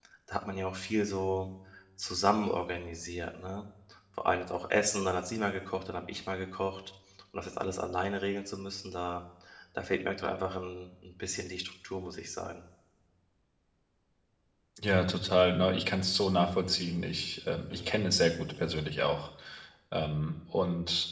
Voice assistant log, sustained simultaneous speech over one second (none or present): none